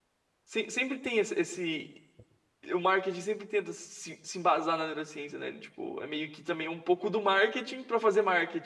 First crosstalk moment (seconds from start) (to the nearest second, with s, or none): none